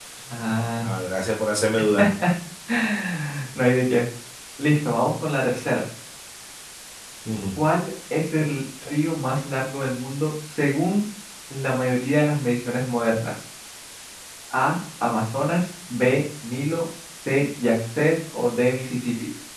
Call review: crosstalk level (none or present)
none